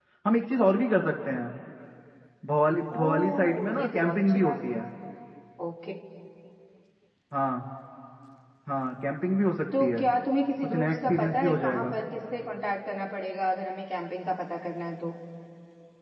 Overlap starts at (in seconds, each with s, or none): 2.9 s